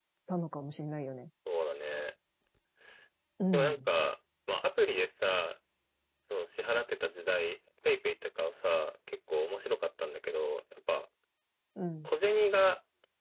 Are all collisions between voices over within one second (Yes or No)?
Yes